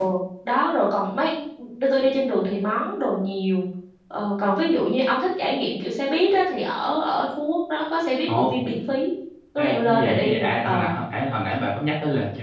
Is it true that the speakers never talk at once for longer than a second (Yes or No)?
No